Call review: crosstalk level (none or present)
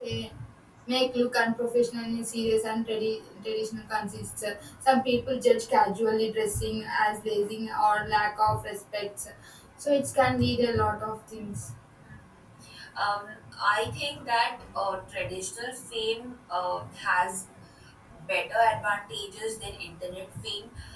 none